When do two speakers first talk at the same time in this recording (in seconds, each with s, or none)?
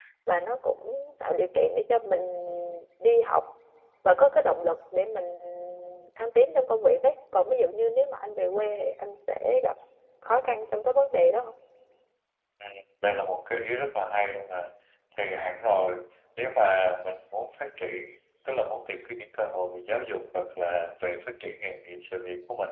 none